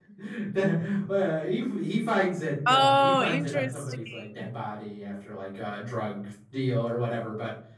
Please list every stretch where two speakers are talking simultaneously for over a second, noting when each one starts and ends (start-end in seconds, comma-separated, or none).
2.7-4.5